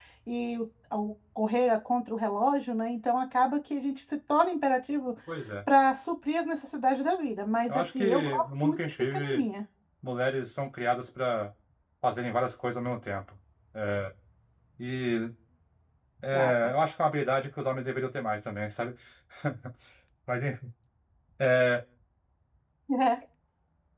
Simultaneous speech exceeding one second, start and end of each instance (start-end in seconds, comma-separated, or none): 7.7-9.4